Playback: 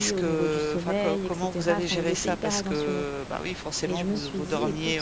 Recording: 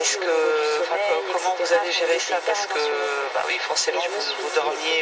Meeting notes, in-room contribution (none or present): none